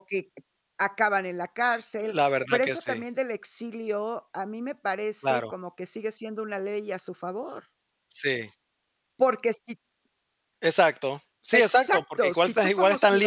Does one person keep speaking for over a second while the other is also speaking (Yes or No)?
Yes